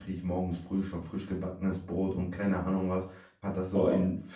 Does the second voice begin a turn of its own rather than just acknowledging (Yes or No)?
No